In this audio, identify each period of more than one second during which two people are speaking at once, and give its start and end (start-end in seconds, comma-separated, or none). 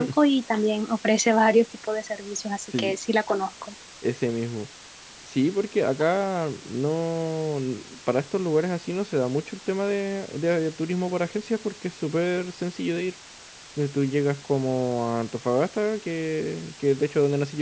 none